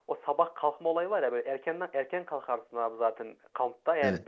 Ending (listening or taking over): listening